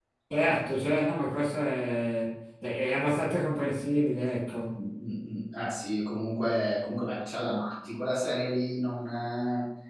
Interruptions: none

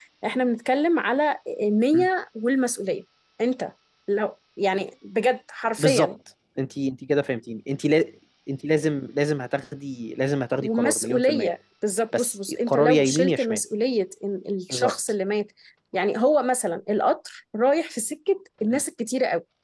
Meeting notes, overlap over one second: present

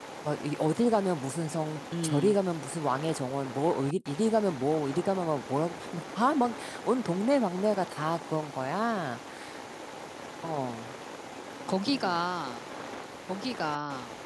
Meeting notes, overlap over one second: none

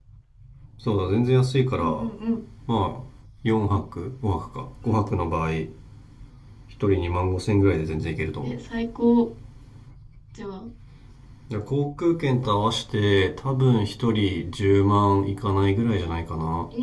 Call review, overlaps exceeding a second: none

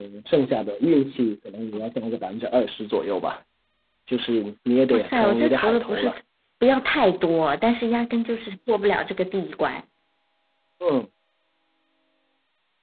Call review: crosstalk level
present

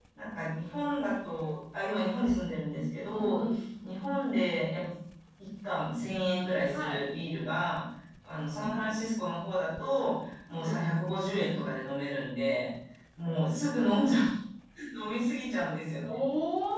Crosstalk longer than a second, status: none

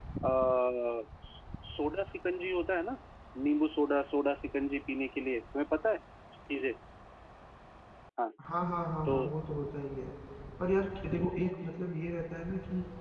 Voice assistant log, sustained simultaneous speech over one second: none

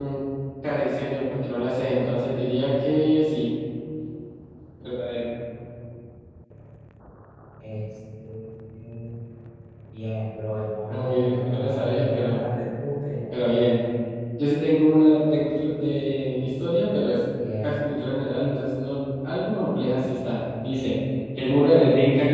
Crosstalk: present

